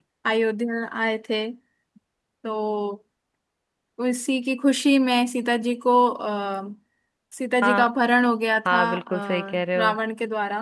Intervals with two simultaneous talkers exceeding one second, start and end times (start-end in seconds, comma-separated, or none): 8.7-9.9